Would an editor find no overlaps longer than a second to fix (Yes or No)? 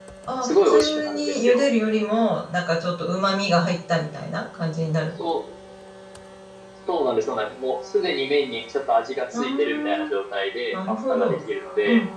No